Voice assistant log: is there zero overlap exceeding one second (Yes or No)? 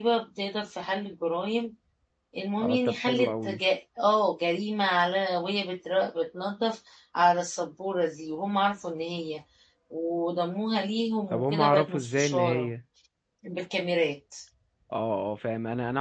No